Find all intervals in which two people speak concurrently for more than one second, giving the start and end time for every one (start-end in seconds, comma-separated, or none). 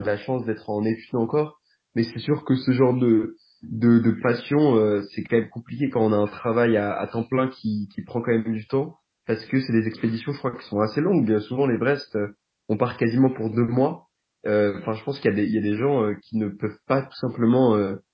none